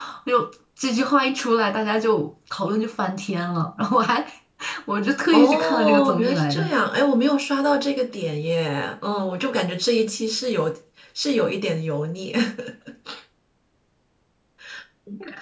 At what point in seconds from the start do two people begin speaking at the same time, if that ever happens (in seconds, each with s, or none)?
5.3 s